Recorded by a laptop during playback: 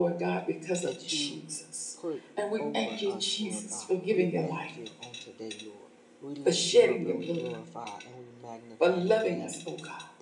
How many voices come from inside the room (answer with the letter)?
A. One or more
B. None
A